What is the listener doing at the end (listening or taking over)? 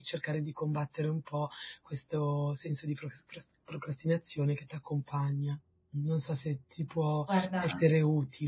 listening